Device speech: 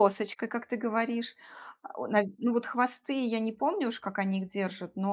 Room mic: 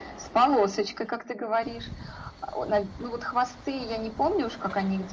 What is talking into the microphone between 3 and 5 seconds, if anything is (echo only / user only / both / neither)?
echo only